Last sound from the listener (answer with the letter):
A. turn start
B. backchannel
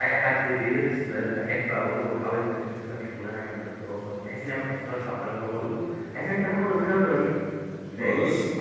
A